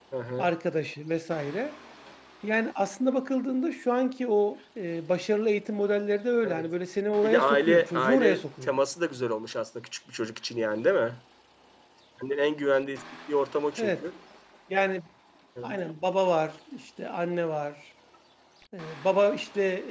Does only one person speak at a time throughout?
No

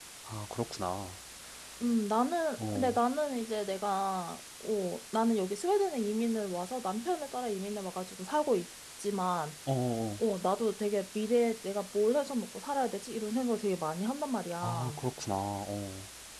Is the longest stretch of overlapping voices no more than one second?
Yes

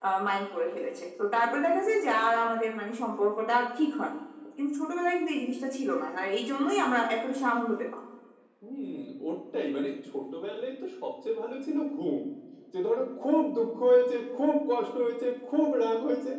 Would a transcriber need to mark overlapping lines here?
No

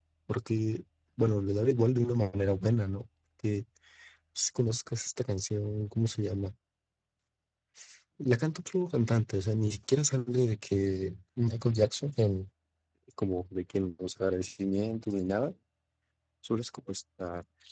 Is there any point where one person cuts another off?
No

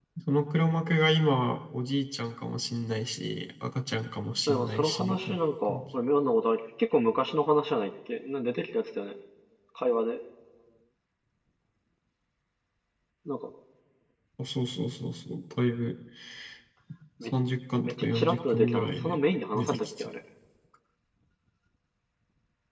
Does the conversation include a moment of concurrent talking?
Yes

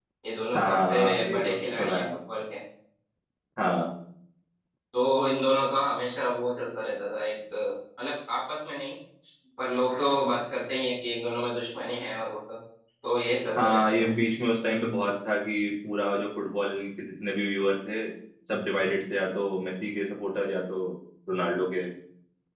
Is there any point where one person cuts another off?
Yes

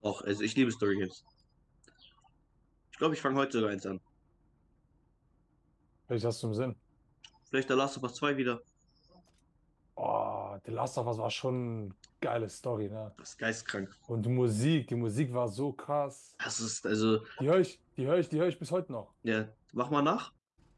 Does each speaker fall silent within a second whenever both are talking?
Yes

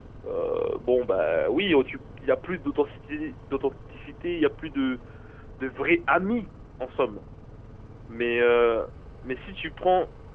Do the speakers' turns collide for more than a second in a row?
No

